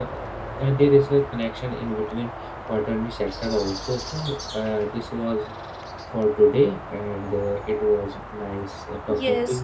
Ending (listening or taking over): taking over